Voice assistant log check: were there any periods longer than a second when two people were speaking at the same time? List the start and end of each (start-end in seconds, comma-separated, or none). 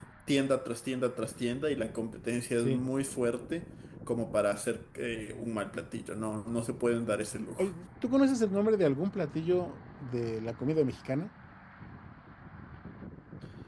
none